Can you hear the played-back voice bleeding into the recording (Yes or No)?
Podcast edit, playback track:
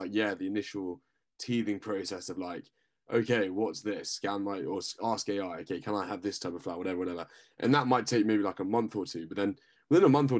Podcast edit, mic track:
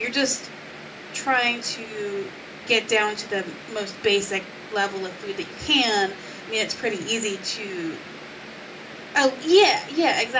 No